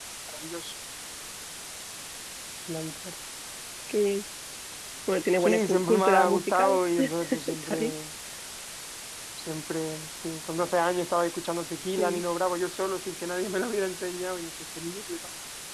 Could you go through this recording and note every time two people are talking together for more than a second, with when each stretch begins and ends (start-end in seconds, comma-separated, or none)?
5.4-7.8